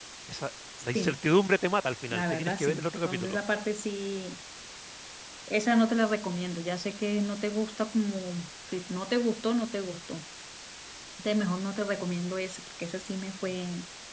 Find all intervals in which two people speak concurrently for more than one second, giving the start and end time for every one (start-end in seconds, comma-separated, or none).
2.1-3.4